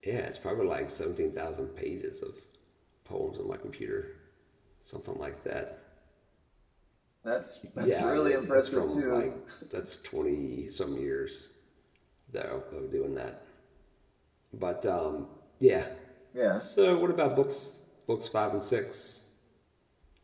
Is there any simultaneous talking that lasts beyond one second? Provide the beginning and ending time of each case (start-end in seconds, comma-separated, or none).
7.8-9.3